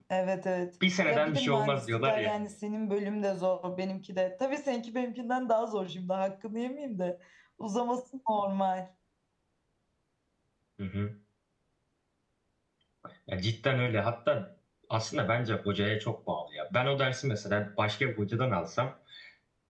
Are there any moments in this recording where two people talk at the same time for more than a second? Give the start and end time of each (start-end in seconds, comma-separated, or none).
1.1-2.4